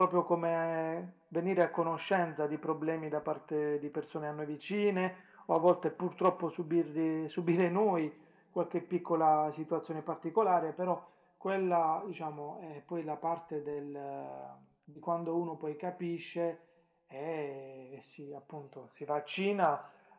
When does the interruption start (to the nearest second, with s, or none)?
none